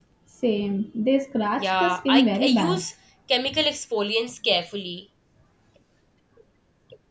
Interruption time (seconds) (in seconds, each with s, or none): 1.6 s